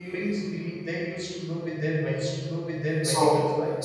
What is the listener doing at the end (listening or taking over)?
taking over